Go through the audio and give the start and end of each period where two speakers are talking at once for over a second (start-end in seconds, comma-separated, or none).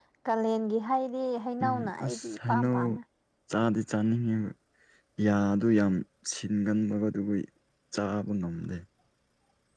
1.6-2.8